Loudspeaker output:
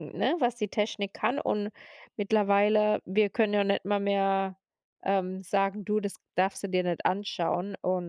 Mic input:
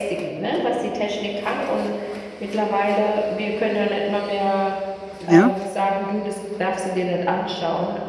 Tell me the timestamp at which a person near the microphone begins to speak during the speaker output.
5.2 s

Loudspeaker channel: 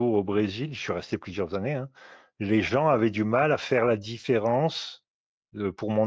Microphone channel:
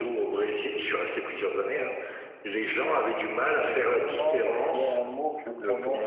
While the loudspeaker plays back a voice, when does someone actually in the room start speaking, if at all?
3.5 s

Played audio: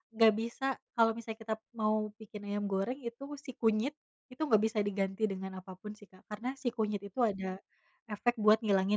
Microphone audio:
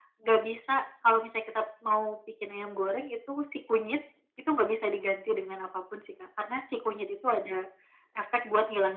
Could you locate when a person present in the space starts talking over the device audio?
none

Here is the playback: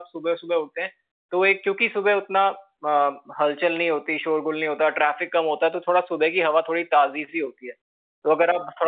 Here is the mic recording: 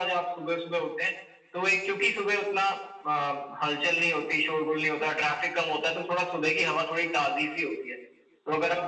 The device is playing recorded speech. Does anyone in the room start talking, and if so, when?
none

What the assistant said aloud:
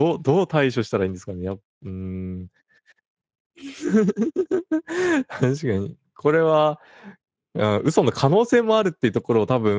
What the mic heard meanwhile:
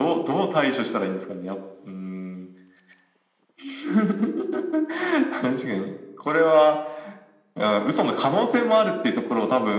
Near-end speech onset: none

